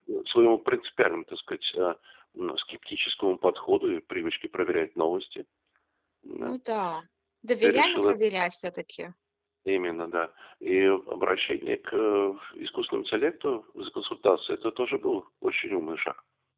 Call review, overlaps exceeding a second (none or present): none